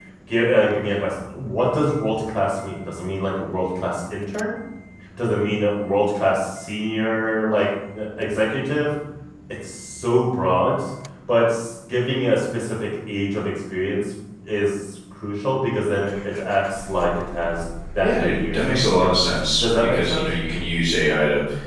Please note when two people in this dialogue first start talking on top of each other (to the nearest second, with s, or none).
18 s